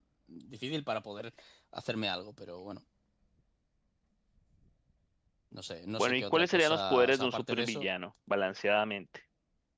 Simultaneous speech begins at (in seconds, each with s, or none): 6.0 s